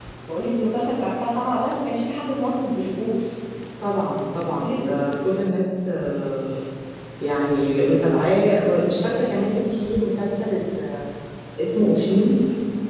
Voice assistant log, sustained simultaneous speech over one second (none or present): none